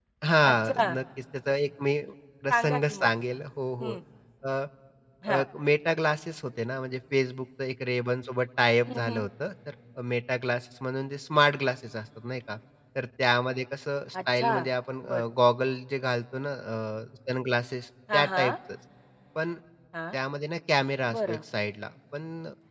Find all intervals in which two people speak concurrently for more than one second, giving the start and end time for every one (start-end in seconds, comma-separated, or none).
none